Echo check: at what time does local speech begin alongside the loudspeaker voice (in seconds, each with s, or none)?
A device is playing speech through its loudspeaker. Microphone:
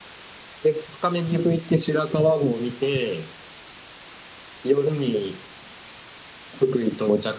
none